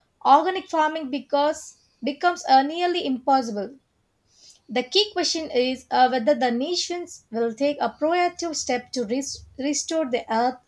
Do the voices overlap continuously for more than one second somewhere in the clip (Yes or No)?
No